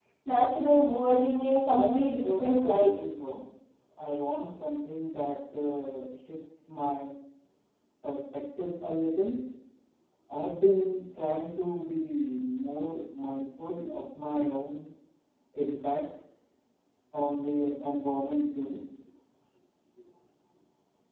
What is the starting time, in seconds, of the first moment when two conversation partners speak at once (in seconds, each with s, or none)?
1.6 s